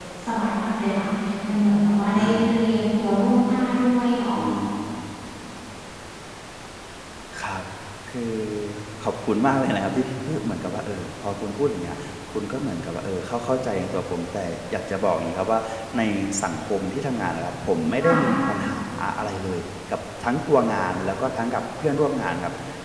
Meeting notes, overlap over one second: none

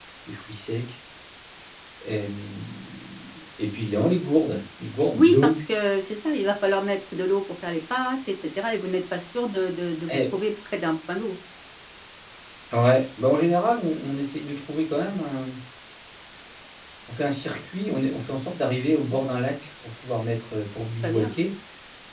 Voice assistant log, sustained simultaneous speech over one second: none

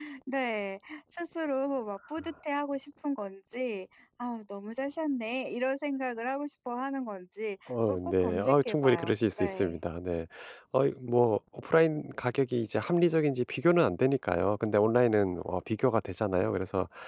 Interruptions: present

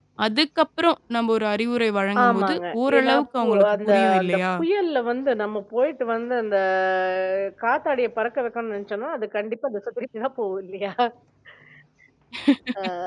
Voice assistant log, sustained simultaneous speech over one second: present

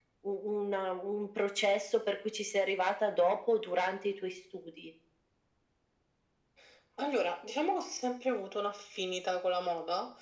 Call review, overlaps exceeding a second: none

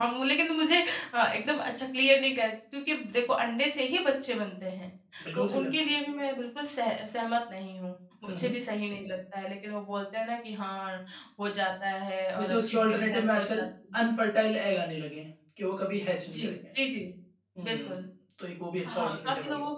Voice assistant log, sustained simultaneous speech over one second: present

